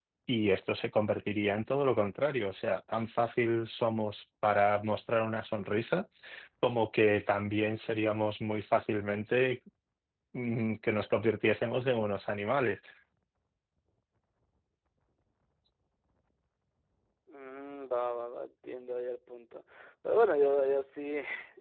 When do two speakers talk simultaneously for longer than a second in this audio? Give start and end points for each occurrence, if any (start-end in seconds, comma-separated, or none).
none